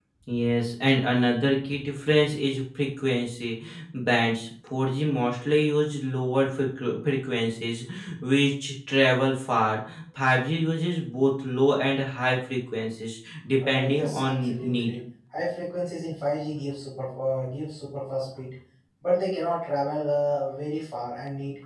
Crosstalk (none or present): present